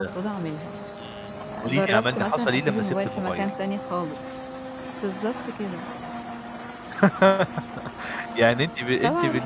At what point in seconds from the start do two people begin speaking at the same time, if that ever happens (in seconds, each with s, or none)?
1.6 s